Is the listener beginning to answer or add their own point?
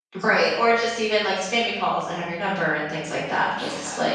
Yes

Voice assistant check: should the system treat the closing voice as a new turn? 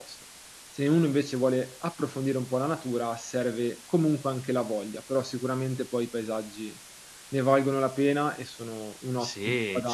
Yes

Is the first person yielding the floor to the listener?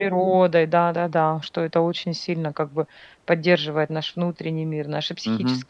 Yes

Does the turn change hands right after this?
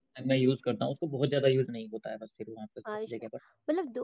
Yes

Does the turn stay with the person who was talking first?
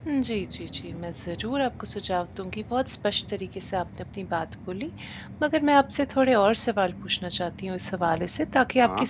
Yes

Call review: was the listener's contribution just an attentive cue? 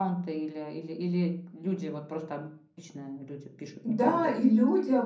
No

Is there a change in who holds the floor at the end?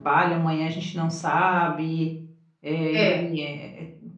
No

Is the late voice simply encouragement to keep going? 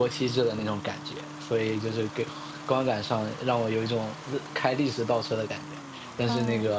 Yes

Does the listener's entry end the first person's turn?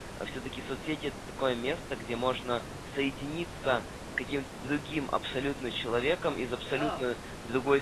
No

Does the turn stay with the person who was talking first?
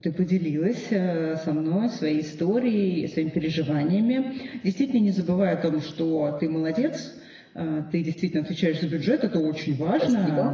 Yes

